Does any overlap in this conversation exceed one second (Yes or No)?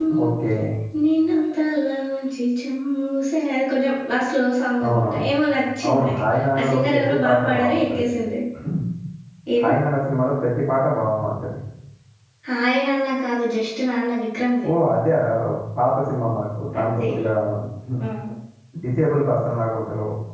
Yes